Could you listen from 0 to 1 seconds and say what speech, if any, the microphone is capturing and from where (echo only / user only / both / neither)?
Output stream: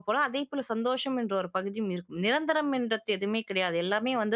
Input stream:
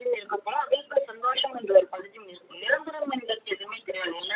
echo only